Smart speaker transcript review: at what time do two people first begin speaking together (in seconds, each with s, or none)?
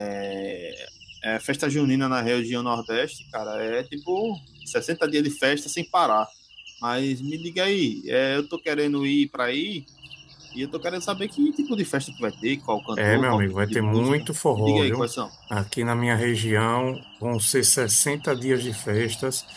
13.0 s